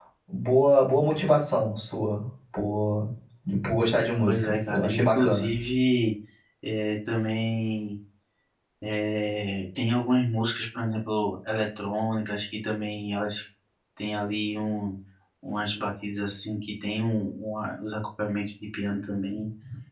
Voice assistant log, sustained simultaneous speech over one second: present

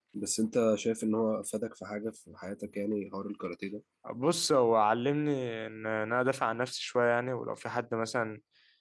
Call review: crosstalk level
none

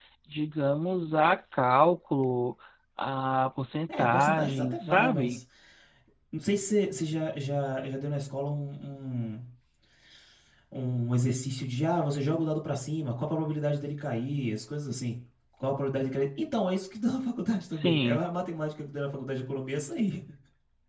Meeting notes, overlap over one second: present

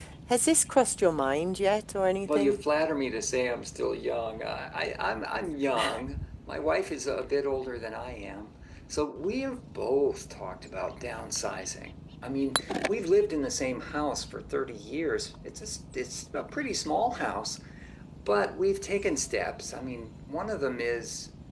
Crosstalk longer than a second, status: none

